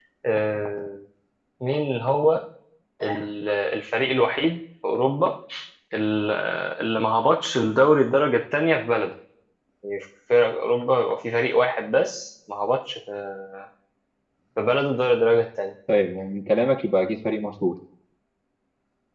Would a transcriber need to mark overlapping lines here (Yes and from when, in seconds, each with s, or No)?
No